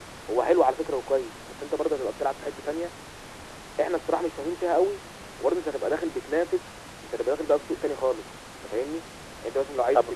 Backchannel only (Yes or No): Yes